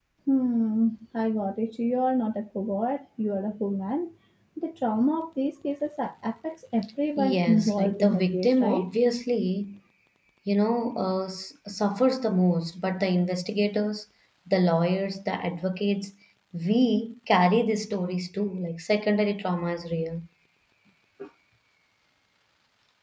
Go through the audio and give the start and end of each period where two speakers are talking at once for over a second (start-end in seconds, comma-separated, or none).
7.2-8.9